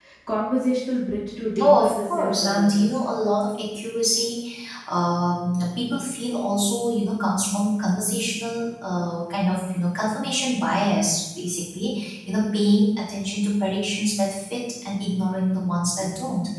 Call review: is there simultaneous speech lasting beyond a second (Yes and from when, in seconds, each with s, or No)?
Yes, from 1.6 s